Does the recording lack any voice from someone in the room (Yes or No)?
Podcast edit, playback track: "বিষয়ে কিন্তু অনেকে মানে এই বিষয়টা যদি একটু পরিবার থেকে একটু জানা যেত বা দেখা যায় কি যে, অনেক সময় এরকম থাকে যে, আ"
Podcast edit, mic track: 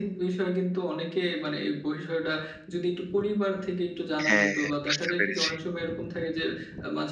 No